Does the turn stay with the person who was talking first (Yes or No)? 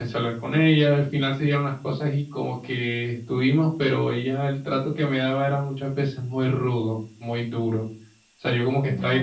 Yes